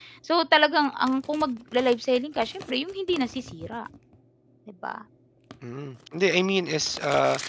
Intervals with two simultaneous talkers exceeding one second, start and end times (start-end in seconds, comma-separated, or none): none